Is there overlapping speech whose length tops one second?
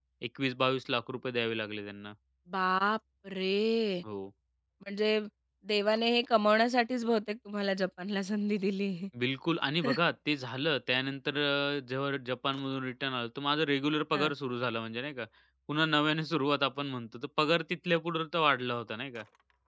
No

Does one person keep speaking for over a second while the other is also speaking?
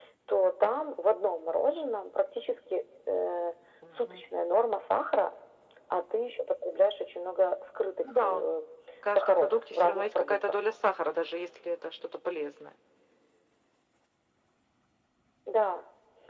Yes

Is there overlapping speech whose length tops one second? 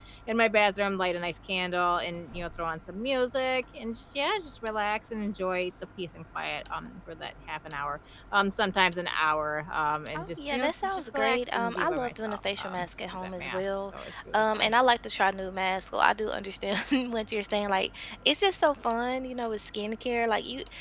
Yes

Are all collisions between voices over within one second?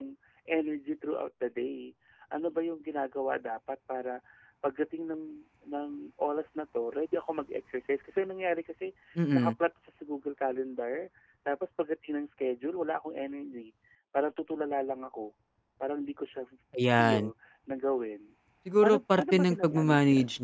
No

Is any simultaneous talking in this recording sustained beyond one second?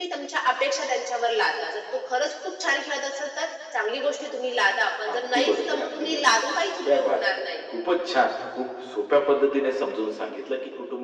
Yes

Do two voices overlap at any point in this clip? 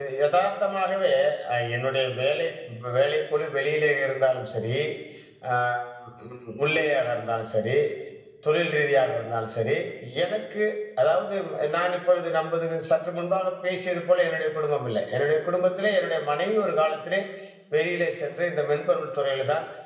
No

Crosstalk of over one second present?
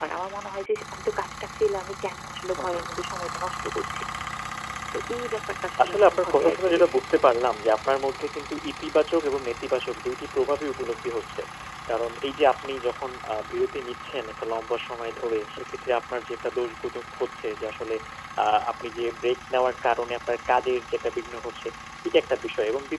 Yes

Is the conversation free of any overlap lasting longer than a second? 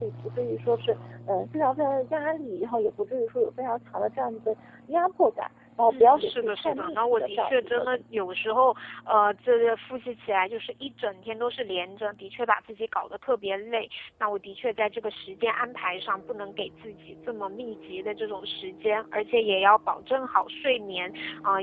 No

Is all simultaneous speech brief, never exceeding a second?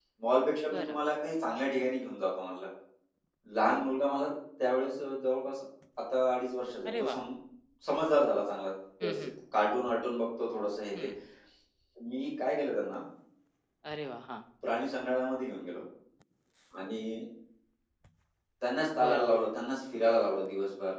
Yes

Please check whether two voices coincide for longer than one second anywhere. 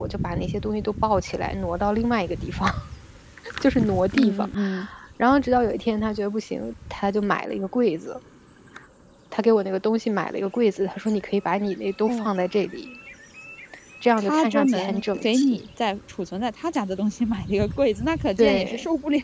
Yes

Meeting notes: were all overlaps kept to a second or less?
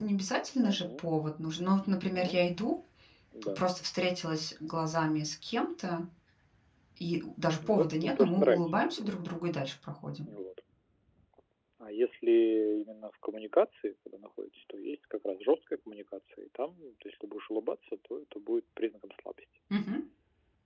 No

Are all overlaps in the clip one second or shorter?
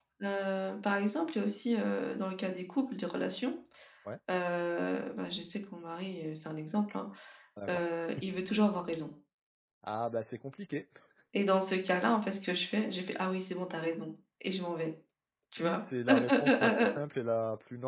No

